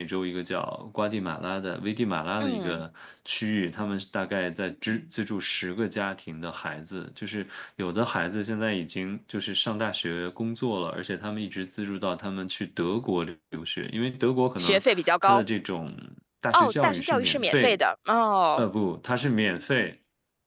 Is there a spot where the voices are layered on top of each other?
Yes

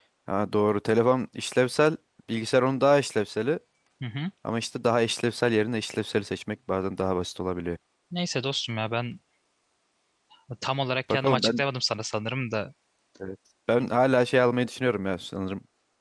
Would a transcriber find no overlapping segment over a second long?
Yes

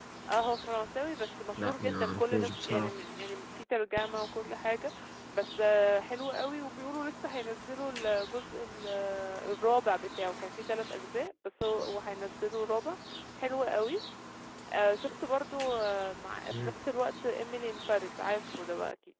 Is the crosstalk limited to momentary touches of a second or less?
No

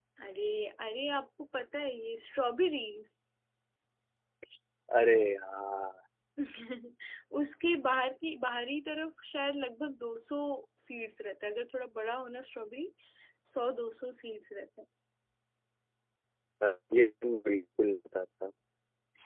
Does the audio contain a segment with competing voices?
No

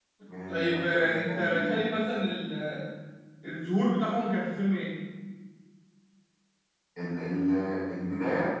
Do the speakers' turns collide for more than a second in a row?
Yes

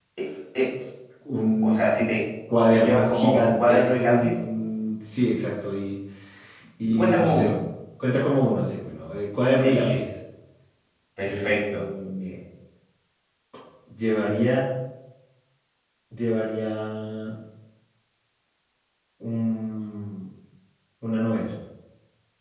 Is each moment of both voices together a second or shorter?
No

